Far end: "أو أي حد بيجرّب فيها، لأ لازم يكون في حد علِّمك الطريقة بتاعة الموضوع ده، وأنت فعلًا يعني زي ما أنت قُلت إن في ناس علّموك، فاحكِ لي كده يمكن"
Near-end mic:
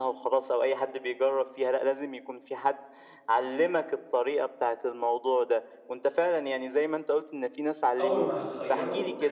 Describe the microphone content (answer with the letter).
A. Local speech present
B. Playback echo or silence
A